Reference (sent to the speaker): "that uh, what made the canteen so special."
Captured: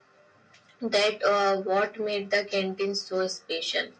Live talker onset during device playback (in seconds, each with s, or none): none